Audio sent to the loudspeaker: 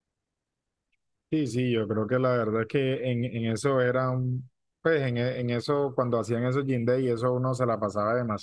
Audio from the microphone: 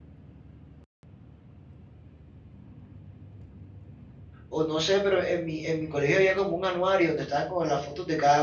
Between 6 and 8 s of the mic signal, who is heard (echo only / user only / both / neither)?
user only